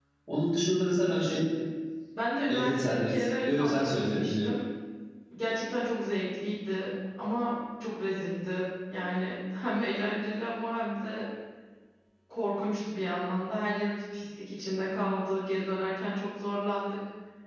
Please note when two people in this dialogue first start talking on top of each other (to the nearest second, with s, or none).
2 s